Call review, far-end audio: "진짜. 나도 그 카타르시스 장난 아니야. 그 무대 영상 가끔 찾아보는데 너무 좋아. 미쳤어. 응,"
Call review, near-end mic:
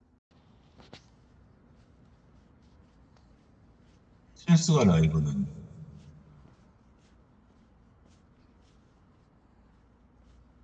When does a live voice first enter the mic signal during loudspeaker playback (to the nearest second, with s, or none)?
4 s